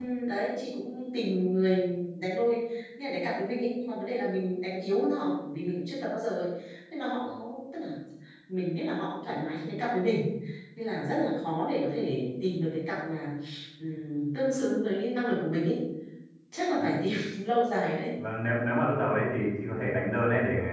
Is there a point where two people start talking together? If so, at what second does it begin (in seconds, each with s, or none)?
none